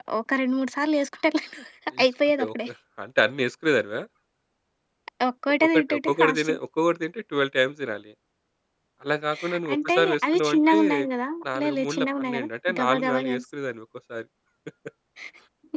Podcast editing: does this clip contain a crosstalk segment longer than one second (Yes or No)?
Yes